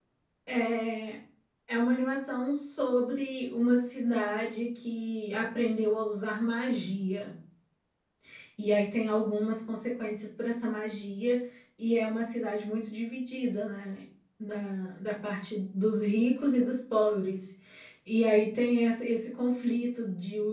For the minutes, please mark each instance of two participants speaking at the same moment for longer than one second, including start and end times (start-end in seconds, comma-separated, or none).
none